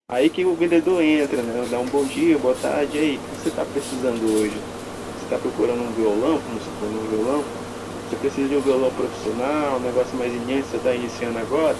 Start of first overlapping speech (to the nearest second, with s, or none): none